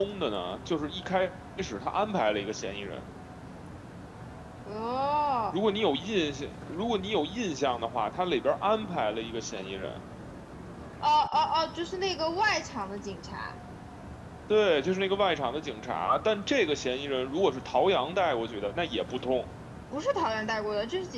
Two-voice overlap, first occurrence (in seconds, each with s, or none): none